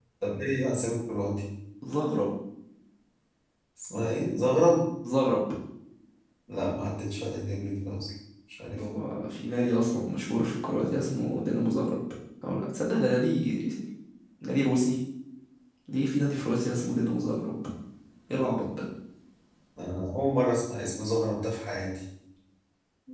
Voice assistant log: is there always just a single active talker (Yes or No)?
Yes